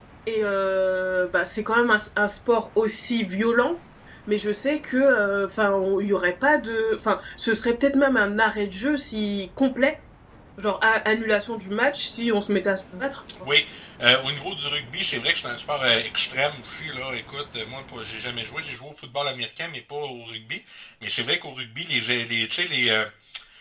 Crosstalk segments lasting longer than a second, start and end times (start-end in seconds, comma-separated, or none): none